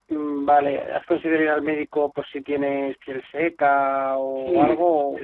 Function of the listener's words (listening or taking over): taking over